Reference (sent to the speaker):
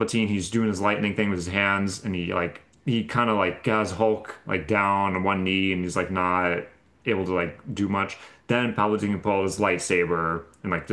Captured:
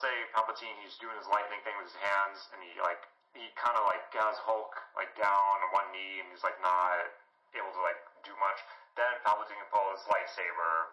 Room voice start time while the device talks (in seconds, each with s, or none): none